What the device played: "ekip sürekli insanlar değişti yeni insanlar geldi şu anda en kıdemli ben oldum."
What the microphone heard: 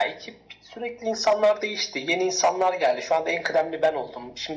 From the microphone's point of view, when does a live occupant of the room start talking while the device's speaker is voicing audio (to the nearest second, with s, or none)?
none